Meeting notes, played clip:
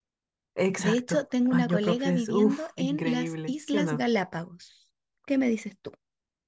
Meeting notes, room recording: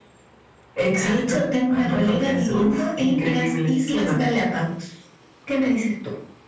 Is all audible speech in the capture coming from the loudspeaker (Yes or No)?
Yes